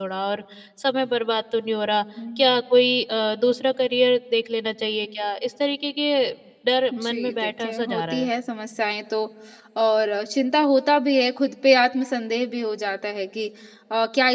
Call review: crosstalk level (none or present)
present